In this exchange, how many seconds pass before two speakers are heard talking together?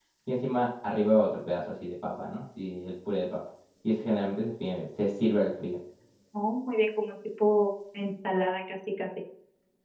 none

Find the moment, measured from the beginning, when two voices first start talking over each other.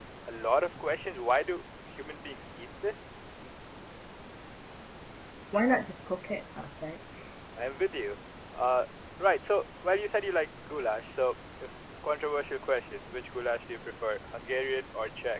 none

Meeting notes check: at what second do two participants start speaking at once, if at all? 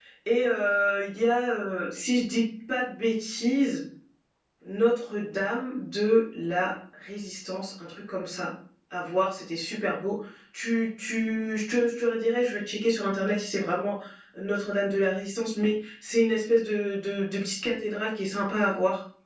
none

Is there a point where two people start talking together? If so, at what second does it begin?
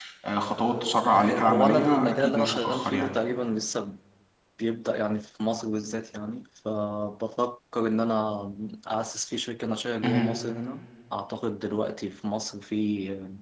1.2 s

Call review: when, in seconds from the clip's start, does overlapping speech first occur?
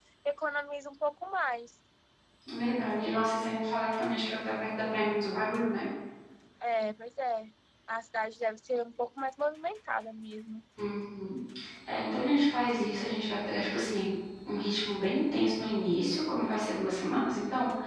none

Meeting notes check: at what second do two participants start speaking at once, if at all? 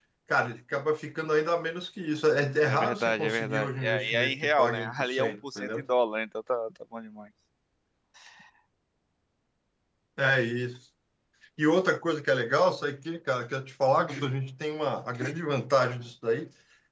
2.6 s

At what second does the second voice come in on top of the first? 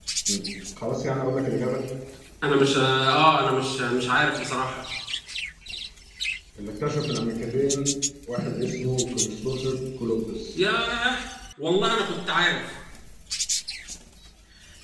none

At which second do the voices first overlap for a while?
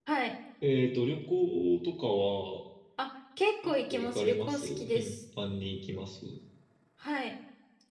3.6 s

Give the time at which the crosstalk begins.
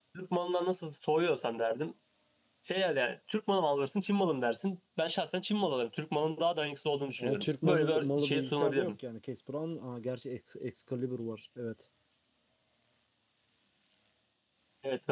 7.2 s

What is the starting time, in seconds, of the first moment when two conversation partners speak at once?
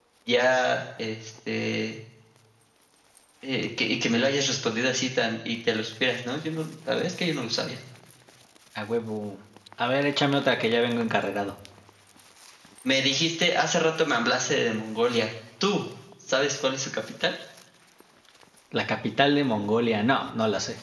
none

